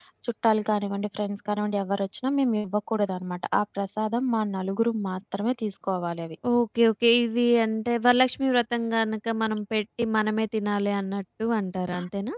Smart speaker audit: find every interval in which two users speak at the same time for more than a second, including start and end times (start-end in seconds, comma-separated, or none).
none